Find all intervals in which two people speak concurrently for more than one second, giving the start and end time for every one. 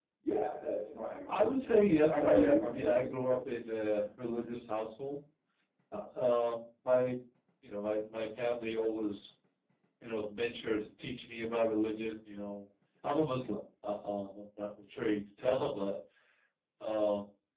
1.4-3.1

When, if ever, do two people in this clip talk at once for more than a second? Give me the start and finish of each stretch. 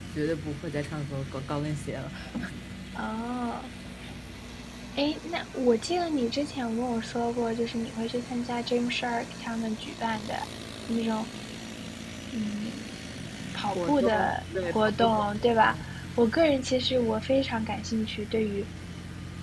13.8-15.8

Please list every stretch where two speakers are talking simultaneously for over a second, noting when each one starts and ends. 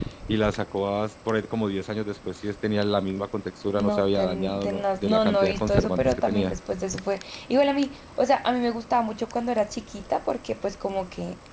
3.8-6.5

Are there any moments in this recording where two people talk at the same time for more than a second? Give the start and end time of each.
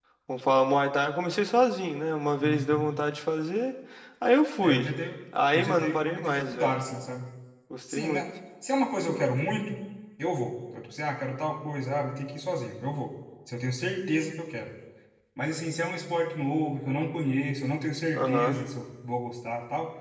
5.5-6.8

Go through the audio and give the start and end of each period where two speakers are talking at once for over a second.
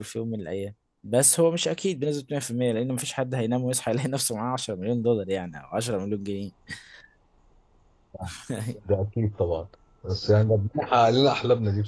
none

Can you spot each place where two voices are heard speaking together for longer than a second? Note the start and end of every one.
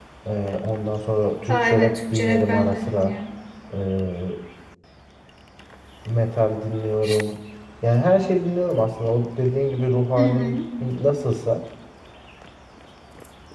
1.5-3.1

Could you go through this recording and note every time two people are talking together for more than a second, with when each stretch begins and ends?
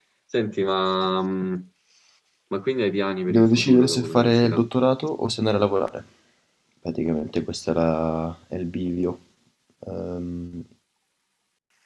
3.3-4.6

